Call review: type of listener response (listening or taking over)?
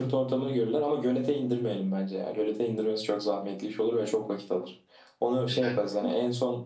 listening